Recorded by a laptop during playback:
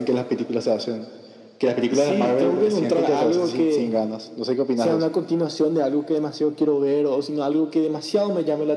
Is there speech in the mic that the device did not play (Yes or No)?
No